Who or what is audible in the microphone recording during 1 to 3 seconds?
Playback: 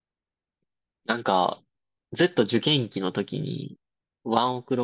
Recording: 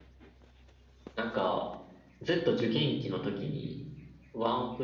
echo only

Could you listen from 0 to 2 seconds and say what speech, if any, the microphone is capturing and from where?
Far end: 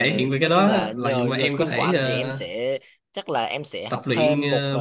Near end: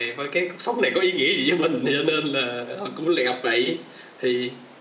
user only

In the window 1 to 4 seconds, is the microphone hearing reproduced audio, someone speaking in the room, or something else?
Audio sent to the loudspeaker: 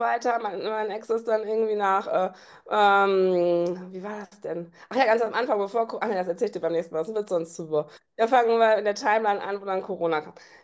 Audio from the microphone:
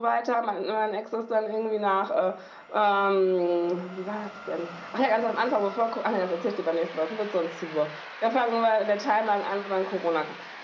echo only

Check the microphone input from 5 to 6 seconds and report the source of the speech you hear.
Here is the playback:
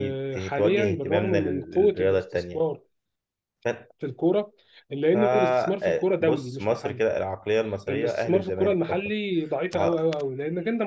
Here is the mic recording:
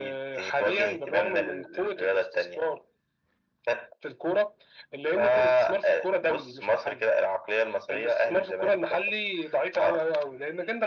echo only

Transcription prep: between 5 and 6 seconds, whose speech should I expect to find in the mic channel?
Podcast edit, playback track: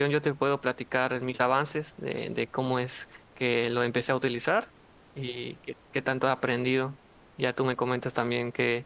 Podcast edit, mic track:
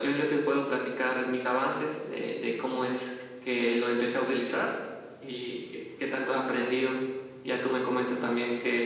echo only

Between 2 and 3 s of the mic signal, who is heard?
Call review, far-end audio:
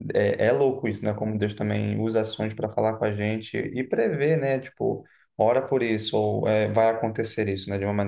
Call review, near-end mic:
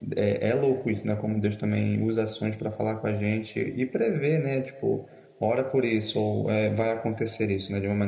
echo only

